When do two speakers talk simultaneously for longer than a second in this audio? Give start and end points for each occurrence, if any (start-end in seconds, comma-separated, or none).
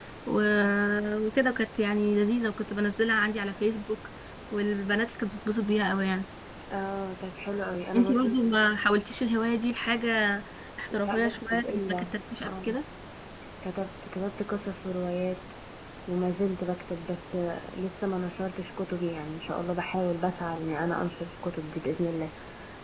10.9-12.7